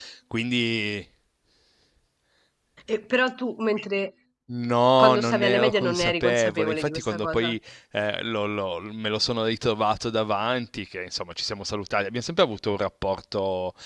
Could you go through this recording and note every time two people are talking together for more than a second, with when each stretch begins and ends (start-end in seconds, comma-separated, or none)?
5.0-7.5